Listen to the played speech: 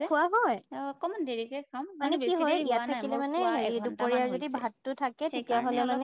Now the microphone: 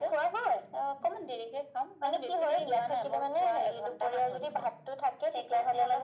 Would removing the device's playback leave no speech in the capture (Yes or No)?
Yes